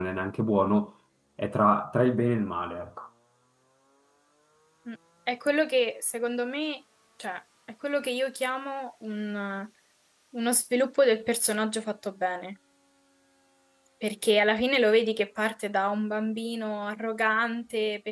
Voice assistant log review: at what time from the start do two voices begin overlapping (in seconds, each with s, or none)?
none